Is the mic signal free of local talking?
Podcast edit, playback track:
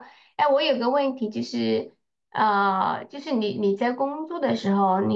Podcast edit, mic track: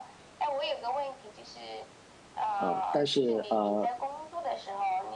No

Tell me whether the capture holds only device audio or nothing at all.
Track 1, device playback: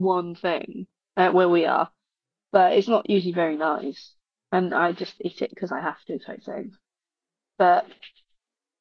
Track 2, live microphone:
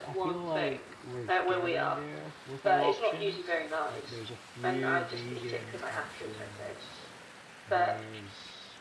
No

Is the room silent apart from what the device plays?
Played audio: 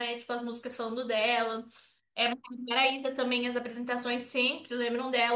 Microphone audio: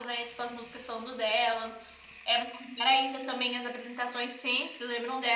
Yes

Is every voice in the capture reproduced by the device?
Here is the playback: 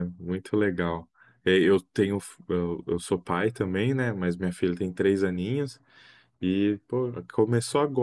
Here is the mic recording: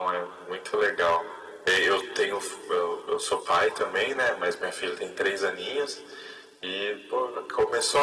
Yes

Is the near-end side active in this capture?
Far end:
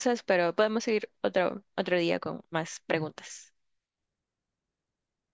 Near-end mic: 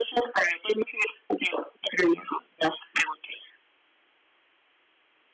No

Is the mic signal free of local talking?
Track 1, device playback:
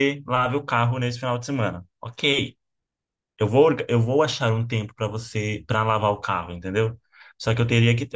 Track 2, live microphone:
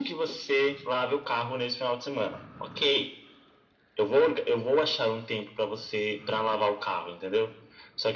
Yes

